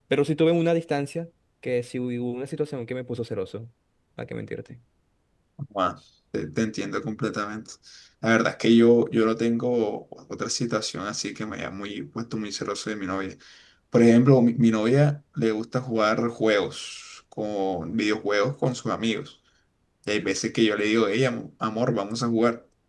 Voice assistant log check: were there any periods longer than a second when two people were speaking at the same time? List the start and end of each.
none

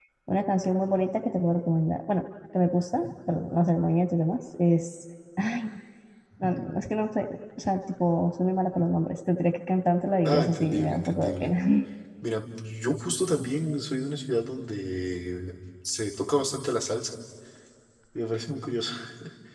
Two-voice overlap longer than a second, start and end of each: 10.2-11.5

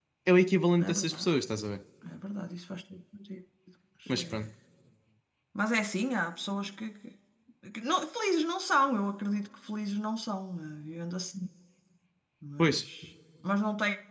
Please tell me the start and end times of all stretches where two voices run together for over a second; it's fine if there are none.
none

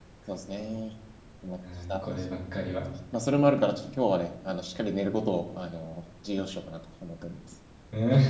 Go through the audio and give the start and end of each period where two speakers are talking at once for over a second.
none

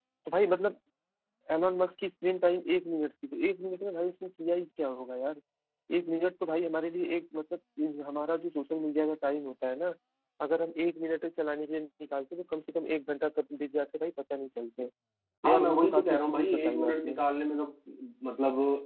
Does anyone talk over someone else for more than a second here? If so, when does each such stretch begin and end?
15.4-17.2

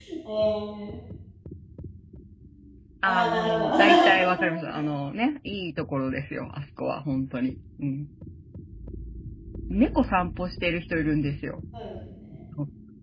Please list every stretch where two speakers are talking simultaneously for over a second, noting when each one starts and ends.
3.0-4.3

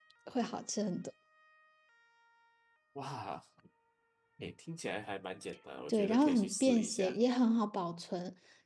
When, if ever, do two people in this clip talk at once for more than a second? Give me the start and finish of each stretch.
5.9-7.2

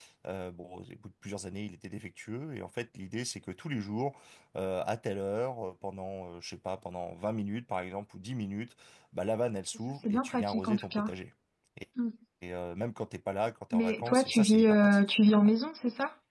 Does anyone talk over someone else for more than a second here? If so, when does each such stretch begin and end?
9.8-11.1, 13.7-15.5

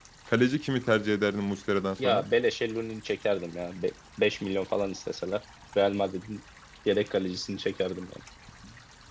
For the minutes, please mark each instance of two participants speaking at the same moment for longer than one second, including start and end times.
none

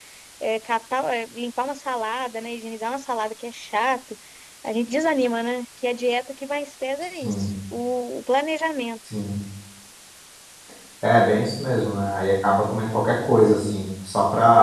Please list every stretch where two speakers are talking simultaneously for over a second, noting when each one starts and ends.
none

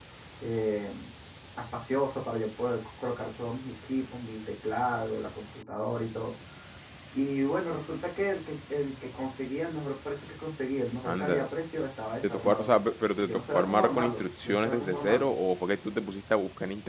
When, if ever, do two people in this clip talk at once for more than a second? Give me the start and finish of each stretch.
13.2-15.3

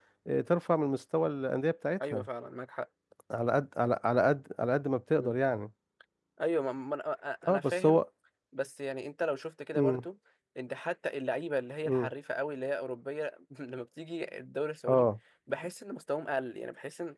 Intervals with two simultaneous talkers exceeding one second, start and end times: none

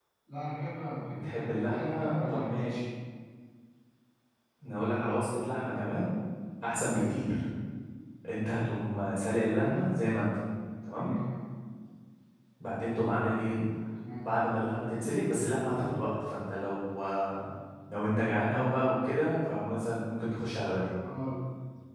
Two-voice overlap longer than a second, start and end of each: 1.1-2.8

